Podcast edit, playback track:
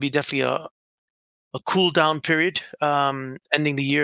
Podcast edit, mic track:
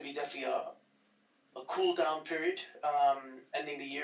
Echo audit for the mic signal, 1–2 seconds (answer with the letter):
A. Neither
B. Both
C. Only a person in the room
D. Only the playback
D